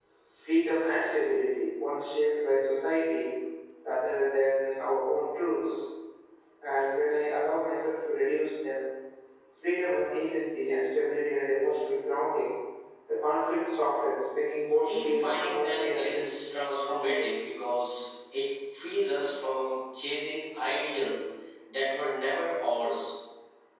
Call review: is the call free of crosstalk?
No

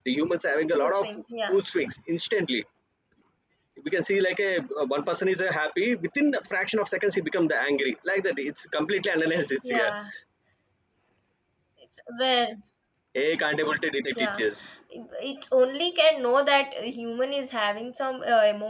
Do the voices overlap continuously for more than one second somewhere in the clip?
No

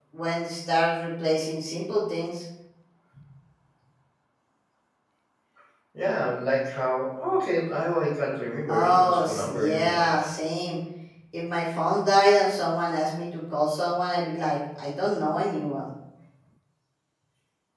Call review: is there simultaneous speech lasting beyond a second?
Yes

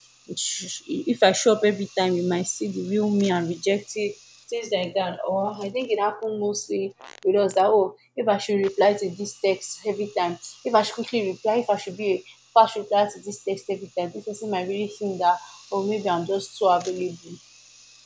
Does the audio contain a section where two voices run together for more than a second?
No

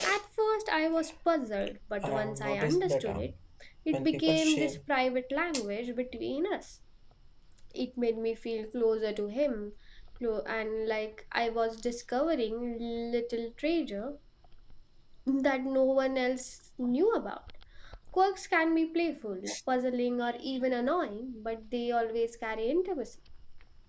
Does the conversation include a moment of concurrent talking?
Yes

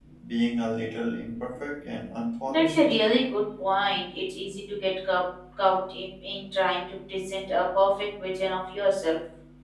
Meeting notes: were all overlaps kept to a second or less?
Yes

